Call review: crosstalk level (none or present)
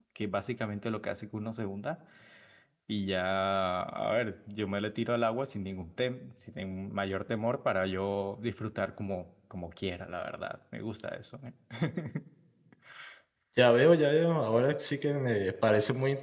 none